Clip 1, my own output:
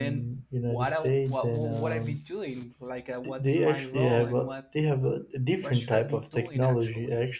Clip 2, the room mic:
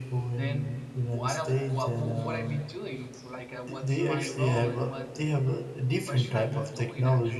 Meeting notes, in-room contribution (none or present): none